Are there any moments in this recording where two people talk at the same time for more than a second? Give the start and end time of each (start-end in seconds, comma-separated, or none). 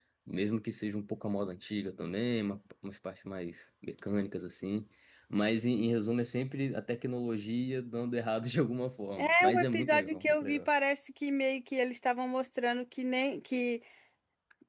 9.2-10.6